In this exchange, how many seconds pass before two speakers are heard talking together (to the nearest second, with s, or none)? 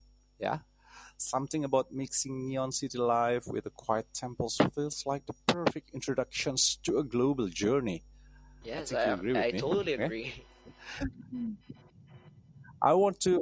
9 s